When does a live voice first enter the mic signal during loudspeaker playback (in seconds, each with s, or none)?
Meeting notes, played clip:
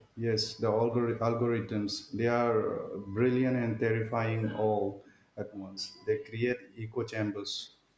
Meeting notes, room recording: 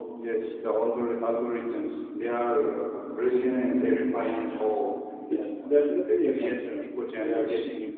5.3 s